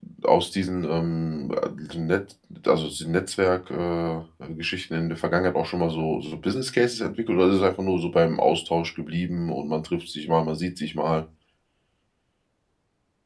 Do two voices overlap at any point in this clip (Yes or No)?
No